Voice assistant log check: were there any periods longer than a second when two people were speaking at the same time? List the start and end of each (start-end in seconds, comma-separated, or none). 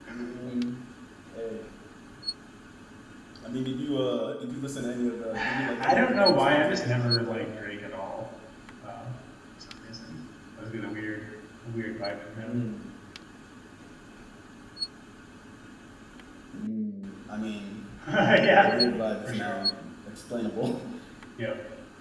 5.3-7.5